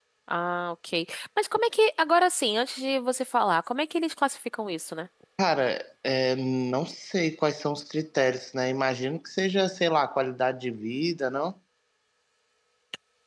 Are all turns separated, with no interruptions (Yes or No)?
Yes